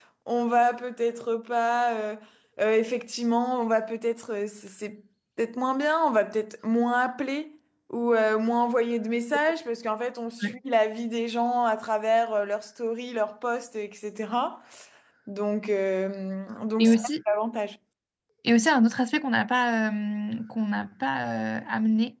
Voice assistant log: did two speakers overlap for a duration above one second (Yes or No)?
No